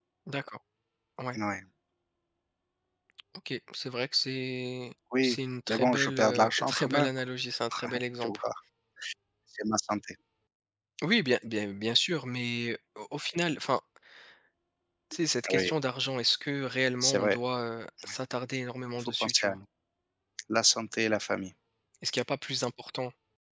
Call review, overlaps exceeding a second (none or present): present